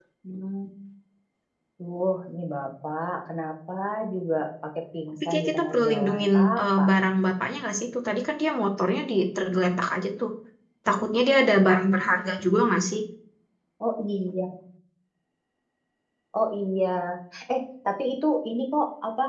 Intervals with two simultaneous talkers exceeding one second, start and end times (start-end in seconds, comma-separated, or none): 5.2-6.9